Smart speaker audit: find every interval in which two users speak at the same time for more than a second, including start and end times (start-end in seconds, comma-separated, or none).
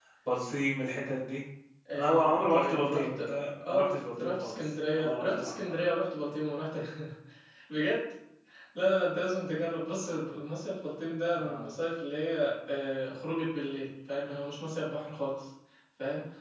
1.9-3.2, 3.7-5.8